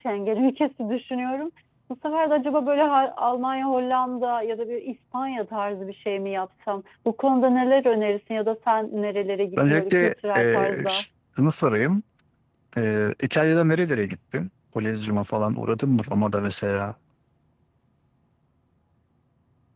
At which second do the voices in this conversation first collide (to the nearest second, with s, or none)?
10 s